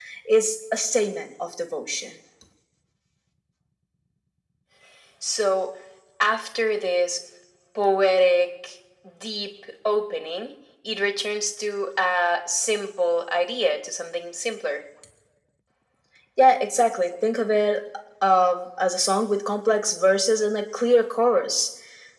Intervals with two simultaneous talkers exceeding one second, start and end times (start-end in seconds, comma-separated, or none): none